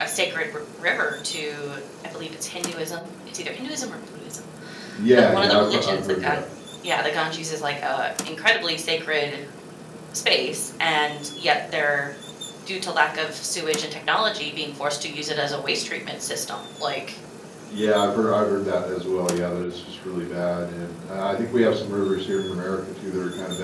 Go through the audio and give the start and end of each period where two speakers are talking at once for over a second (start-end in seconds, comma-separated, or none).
5.2-6.4